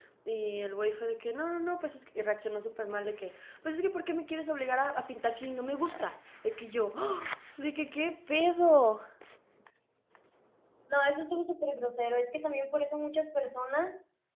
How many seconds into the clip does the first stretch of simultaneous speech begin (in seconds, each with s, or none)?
none